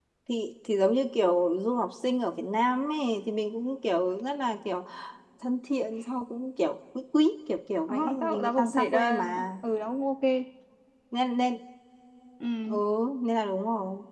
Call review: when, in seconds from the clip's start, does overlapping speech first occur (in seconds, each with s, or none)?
7.9 s